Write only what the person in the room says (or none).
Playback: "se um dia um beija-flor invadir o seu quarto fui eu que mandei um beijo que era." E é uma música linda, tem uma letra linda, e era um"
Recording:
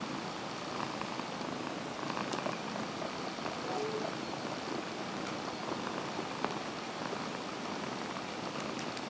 none